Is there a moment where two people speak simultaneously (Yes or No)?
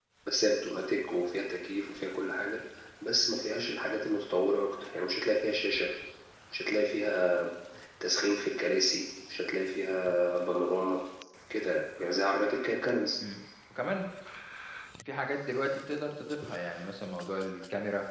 No